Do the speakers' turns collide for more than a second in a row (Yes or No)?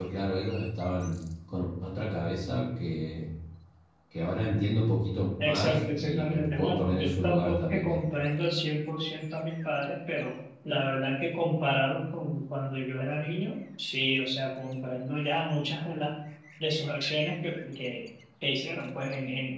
Yes